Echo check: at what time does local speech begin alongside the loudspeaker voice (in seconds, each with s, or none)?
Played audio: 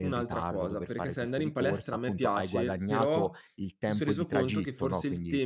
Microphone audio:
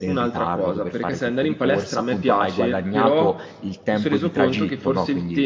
none